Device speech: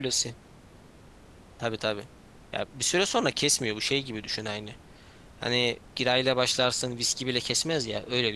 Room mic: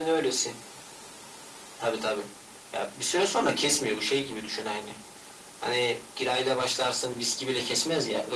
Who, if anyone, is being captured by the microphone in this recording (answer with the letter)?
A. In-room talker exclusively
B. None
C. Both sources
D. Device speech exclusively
D